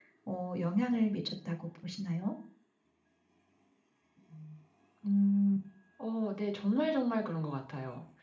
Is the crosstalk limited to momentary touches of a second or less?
Yes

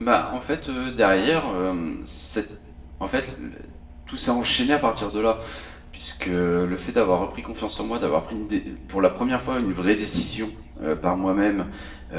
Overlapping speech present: No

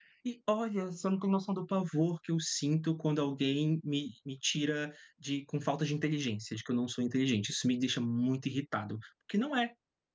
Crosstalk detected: No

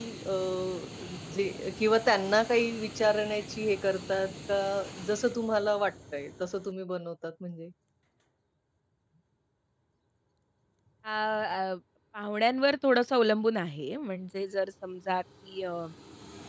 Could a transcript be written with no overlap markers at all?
Yes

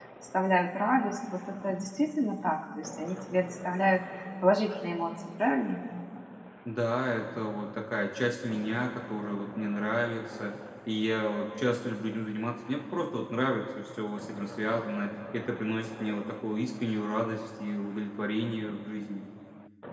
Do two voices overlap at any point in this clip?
No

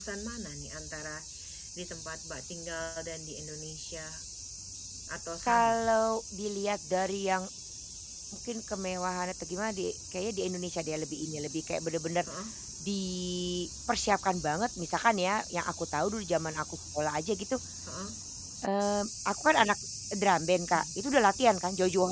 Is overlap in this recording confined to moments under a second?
Yes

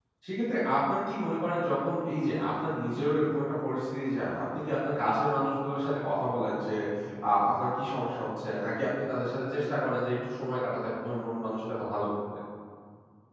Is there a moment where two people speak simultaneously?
No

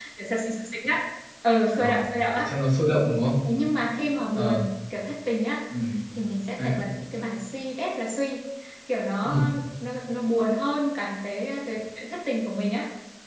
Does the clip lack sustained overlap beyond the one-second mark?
Yes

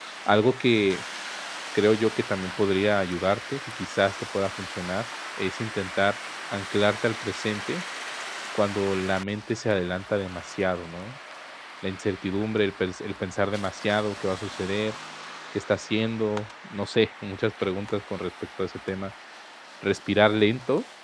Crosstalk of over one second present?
No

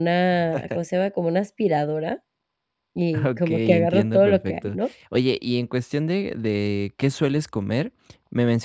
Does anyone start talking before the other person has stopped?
Yes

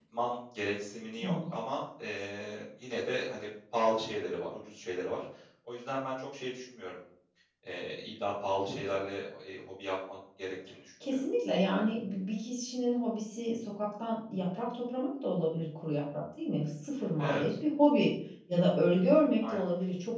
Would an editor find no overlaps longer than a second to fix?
Yes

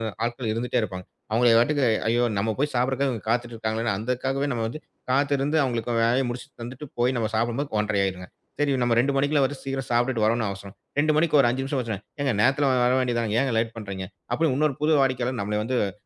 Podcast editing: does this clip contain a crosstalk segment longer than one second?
No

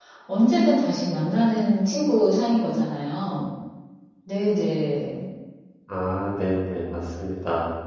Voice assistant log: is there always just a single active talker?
Yes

